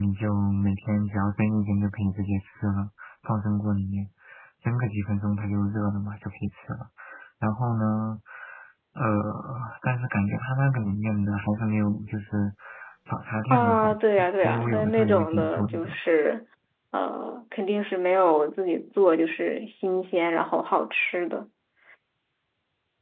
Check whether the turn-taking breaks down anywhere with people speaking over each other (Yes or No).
Yes